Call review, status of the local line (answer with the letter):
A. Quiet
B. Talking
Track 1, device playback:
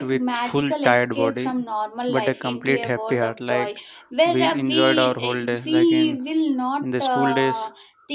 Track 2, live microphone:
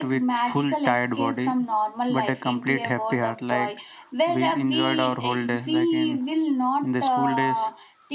A